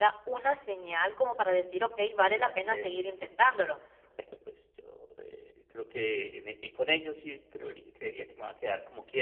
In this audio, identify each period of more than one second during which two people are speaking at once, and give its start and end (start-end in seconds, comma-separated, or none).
2.4-3.8